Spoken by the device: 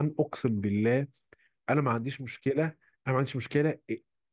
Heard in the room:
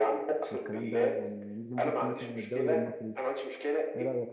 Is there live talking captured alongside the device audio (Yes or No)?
Yes